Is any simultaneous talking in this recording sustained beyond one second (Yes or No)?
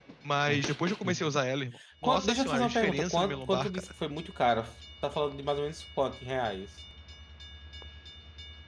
Yes